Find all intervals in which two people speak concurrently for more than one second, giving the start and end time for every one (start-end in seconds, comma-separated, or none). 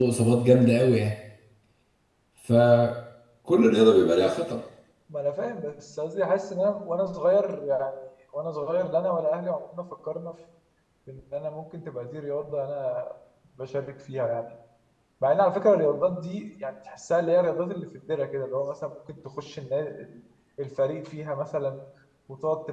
none